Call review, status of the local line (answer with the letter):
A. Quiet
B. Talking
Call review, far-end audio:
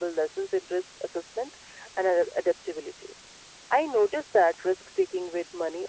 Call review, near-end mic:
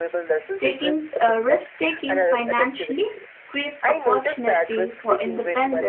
B